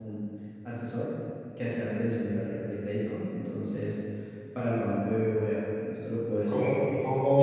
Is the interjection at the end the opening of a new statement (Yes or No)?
Yes